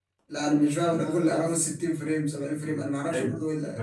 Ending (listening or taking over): taking over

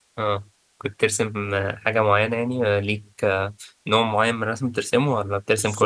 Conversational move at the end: taking over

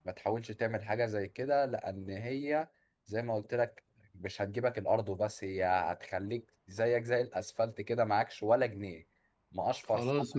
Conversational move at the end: taking over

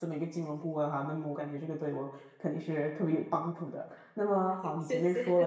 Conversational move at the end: listening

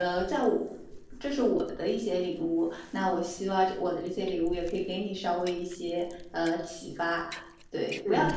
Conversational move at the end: listening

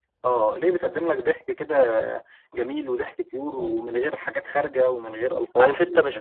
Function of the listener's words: taking over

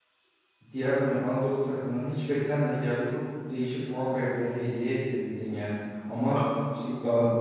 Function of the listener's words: listening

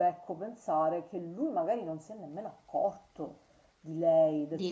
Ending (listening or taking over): listening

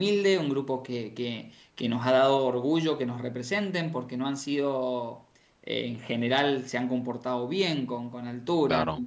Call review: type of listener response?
listening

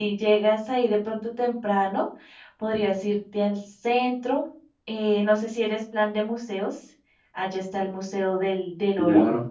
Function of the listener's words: taking over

